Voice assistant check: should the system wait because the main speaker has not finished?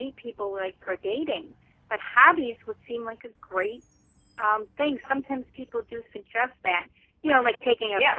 Yes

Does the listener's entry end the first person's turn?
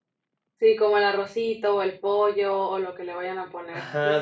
Yes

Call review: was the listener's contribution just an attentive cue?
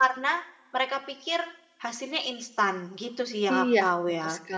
No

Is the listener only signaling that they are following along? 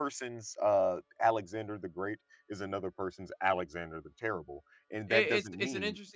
No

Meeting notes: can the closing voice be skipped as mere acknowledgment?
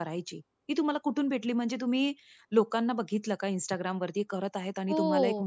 No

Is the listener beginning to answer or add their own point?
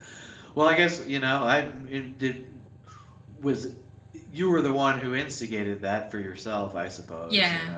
Yes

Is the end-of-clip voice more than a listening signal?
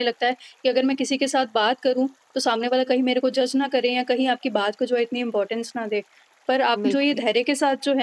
No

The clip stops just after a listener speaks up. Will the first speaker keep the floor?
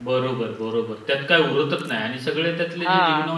Yes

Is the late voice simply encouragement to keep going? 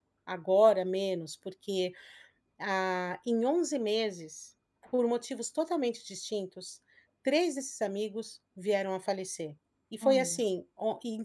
Yes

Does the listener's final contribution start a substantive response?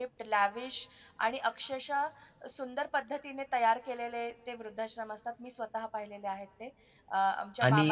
Yes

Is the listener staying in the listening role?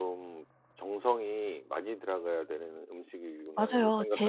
No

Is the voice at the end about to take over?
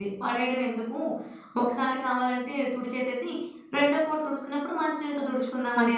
Yes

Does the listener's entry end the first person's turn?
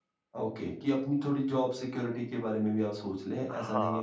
Yes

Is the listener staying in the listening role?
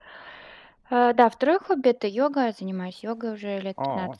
Yes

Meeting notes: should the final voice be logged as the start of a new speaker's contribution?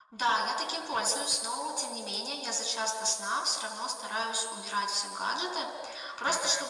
No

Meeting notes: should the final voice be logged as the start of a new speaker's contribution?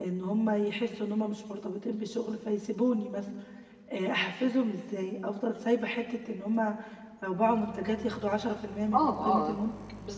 Yes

